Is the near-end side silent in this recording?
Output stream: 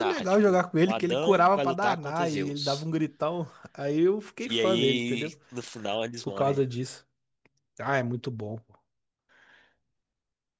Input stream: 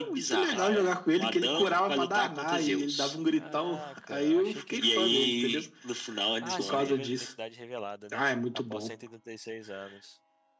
No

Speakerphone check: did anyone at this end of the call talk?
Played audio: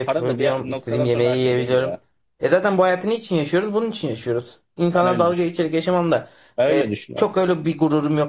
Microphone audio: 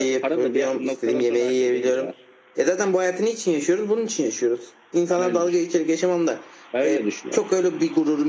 No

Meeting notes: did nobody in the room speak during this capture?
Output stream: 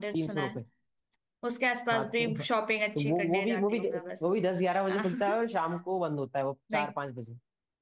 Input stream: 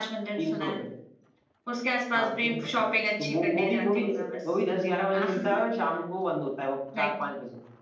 Yes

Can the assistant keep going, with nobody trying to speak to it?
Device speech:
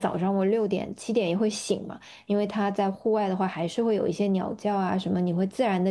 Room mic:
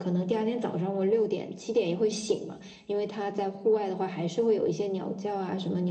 Yes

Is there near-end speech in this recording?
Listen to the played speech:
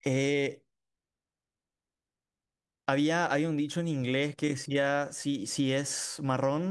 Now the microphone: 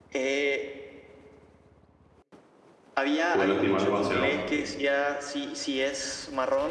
Yes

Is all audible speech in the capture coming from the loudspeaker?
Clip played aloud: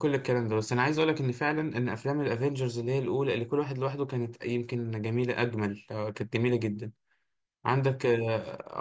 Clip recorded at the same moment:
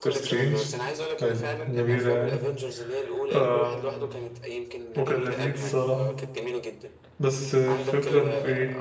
No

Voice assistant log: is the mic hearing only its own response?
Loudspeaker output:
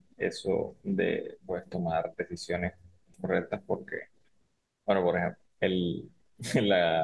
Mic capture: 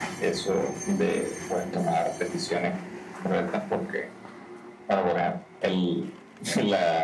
Yes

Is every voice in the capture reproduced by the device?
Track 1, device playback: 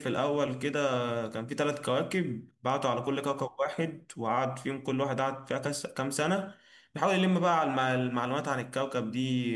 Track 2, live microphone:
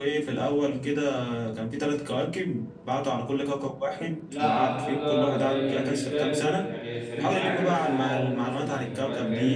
No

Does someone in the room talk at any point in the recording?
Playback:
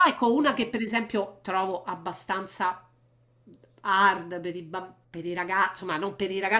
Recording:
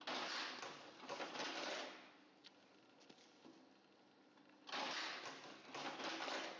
No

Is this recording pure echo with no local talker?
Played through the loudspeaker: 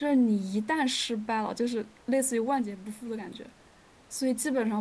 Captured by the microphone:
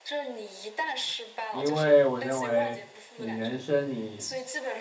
No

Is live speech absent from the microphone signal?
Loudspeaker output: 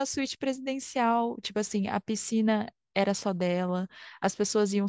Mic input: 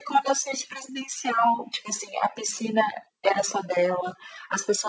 Yes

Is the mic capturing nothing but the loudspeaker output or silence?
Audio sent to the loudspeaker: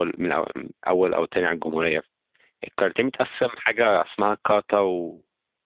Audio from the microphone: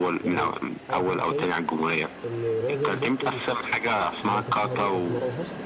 No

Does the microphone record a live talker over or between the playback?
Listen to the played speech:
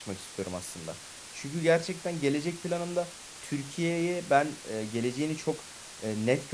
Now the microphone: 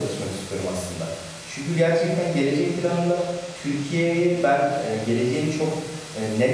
No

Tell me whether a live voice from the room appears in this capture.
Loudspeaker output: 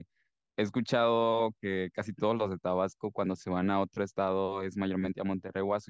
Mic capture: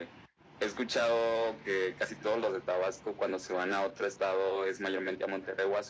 No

